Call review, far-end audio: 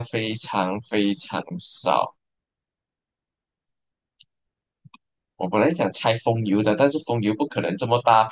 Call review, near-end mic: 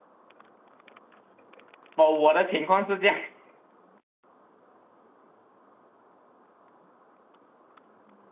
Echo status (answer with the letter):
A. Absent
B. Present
A